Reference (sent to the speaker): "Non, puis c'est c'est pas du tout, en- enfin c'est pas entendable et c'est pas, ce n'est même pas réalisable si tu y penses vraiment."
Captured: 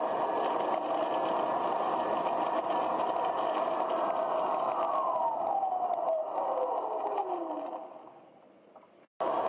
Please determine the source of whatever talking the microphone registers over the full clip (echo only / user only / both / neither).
neither